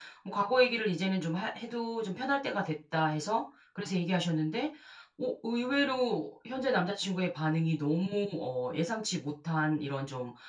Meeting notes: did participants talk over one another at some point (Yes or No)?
No